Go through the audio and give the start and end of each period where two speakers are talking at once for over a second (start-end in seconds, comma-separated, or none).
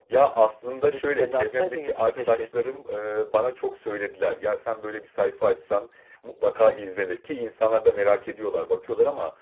0.7-2.5